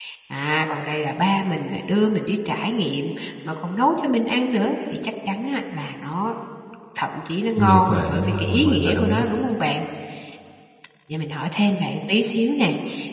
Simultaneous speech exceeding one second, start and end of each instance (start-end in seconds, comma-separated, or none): 7.6-9.2